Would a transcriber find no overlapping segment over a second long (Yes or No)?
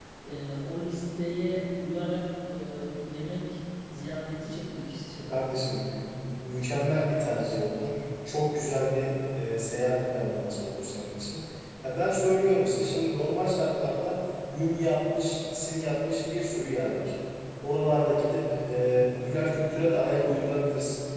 Yes